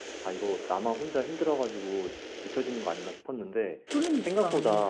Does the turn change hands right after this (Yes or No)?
No